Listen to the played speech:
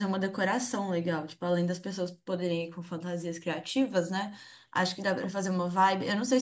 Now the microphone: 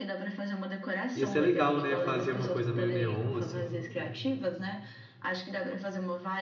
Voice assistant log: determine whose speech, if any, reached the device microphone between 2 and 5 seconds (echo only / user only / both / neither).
both